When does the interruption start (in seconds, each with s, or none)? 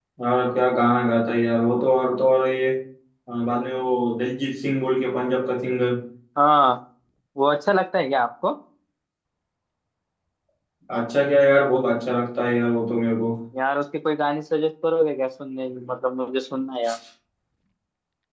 none